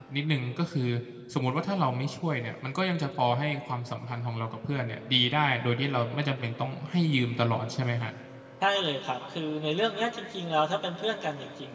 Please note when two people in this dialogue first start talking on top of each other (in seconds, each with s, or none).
none